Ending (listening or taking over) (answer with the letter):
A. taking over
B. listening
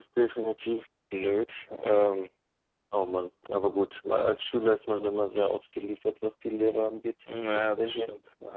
A